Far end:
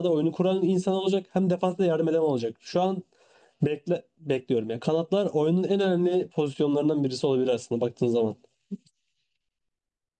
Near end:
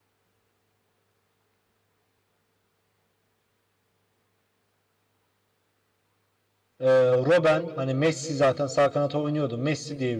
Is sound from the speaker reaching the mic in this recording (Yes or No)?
No